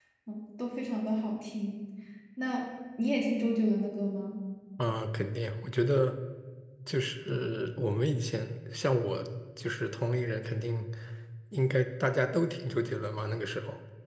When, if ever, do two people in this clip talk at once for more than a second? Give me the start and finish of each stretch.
none

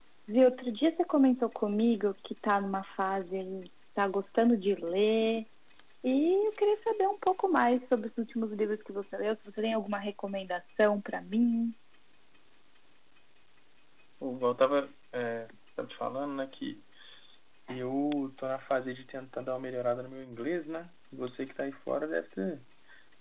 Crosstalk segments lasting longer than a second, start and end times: none

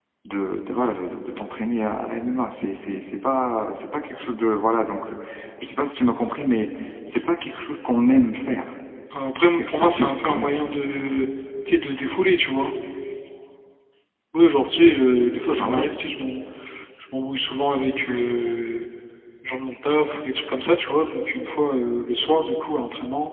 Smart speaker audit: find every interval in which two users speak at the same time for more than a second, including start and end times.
9.3-10.6

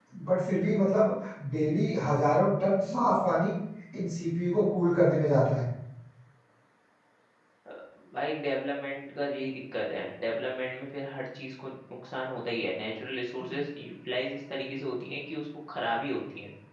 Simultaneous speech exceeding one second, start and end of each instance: none

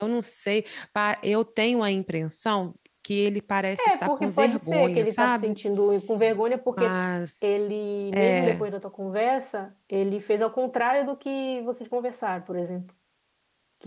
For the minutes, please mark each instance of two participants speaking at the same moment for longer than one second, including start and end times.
3.8-5.6

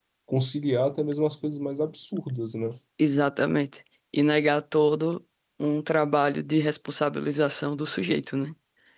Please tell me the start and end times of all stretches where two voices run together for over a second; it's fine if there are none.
none

